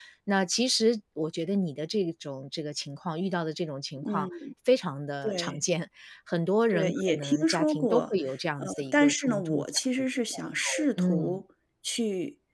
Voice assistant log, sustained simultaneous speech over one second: present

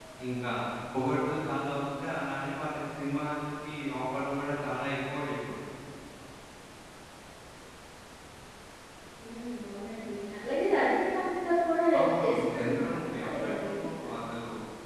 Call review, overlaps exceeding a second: present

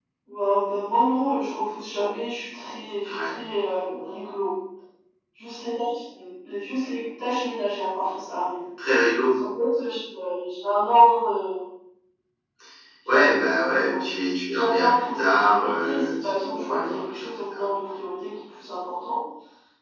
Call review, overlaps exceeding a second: present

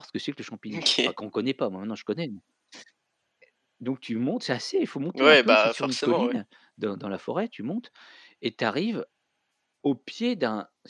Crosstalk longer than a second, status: present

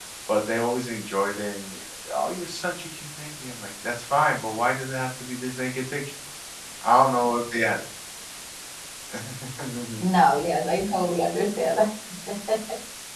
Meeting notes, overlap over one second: none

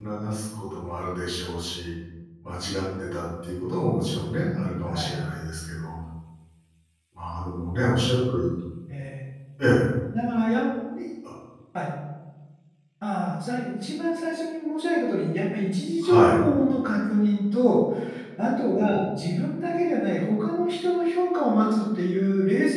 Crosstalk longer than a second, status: none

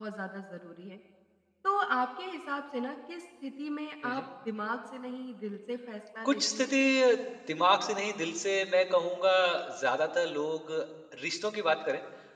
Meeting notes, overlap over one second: none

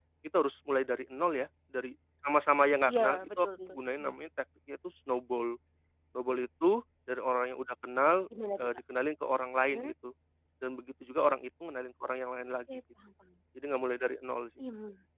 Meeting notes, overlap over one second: present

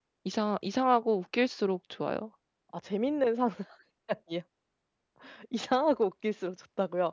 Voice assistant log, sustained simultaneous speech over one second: none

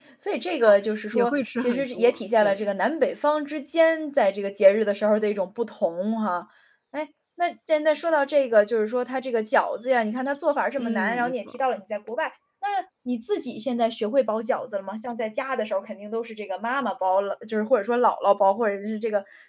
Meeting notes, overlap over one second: present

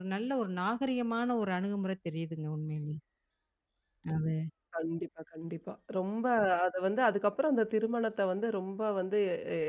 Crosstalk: none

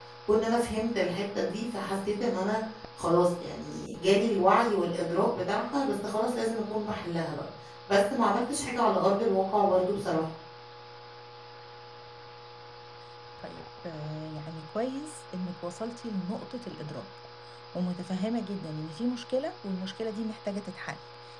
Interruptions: none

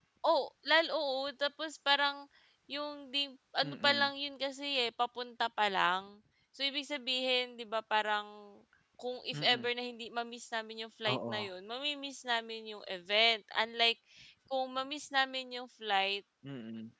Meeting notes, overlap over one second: none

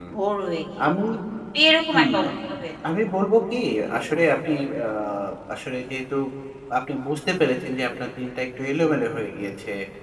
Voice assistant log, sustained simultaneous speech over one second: none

